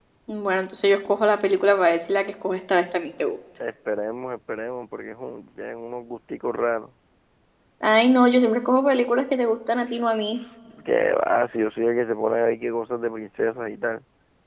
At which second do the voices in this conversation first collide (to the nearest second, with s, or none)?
none